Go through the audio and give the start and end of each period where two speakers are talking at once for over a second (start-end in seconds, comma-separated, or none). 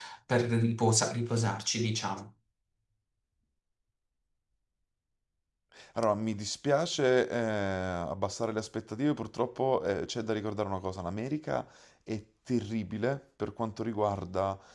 none